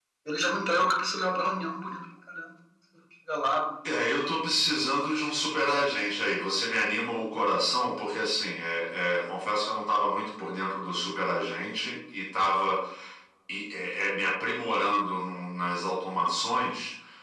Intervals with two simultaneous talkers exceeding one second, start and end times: none

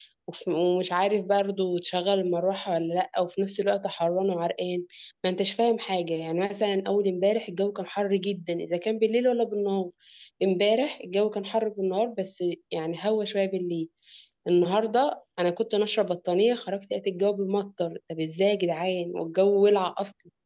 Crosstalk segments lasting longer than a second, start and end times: none

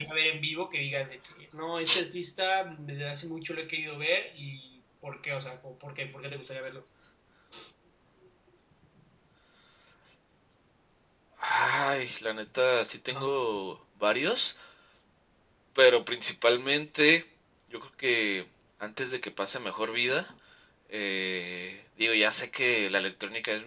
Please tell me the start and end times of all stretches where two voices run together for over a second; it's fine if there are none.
none

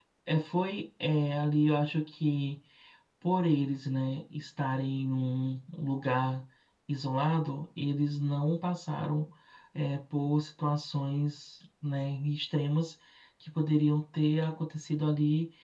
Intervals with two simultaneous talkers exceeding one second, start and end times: none

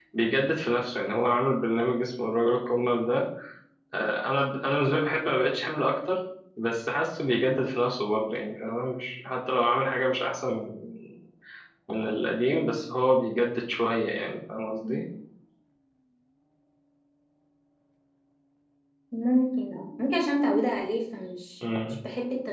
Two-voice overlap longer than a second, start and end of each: none

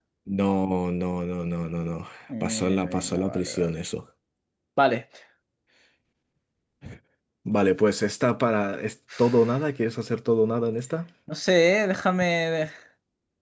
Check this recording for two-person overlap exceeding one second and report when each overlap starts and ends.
2.4-3.7

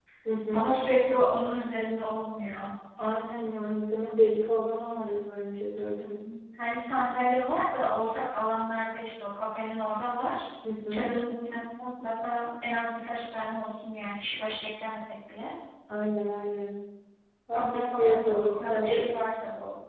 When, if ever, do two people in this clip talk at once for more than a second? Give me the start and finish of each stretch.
17.5-19.1

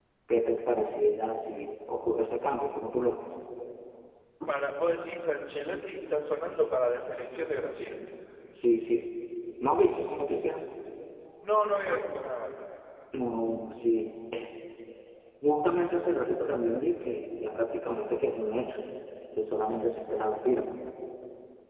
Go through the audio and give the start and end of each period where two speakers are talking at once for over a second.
none

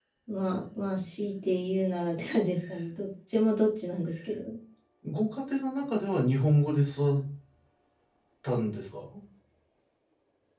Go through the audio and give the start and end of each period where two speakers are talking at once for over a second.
none

